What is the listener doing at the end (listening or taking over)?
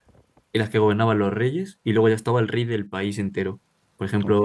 listening